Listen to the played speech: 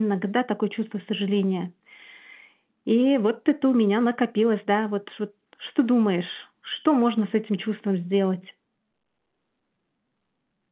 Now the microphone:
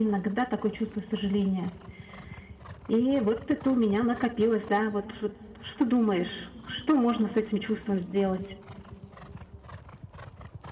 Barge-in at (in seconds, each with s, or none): none